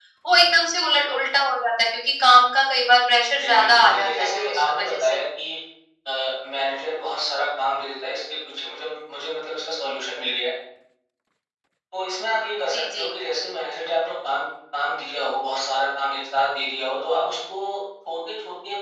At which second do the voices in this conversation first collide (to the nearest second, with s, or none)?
3 s